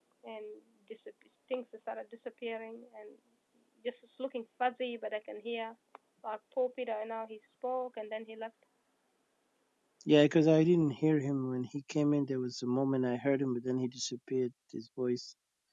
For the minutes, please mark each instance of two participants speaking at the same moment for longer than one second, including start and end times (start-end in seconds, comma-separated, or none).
none